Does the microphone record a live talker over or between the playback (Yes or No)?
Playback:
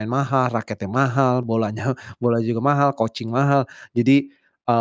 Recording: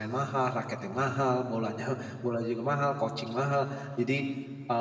No